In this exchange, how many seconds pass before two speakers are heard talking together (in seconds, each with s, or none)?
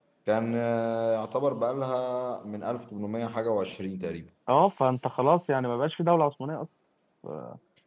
none